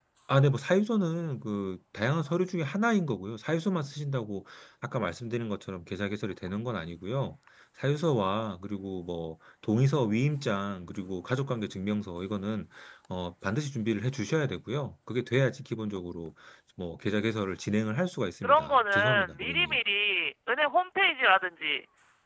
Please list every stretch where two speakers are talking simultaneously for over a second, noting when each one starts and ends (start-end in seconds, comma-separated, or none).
18.4-19.8